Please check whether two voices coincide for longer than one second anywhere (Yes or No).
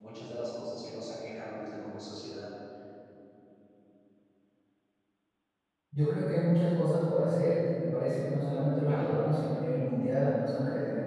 No